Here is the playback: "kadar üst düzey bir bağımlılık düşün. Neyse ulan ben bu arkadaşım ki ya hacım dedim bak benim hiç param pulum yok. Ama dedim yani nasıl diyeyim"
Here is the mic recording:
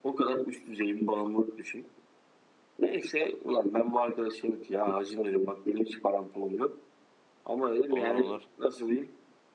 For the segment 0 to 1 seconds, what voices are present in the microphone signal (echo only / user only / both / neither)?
echo only